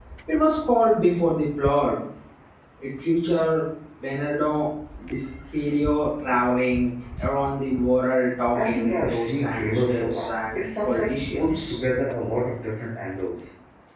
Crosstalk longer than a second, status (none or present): present